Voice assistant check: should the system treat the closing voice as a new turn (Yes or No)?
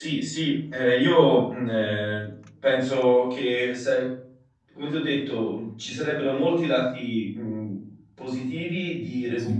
No